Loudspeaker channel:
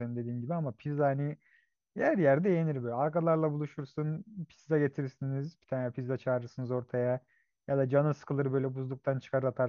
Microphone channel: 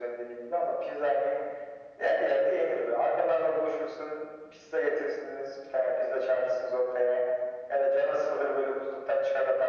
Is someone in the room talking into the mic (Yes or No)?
No